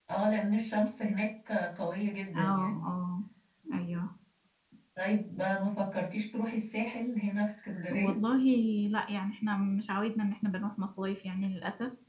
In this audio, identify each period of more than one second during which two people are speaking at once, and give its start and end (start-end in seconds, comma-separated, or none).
none